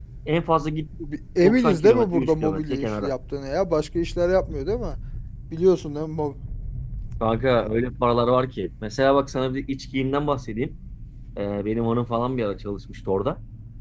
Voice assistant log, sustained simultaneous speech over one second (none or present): present